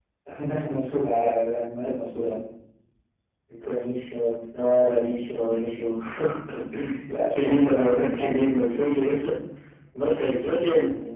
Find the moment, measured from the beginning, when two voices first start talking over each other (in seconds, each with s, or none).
7.3 s